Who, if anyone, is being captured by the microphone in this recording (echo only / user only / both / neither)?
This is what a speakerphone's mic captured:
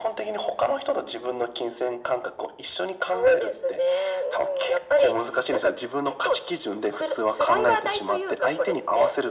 echo only